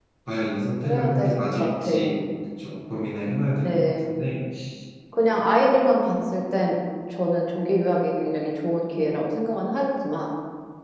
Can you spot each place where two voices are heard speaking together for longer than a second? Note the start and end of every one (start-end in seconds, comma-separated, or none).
0.8-2.2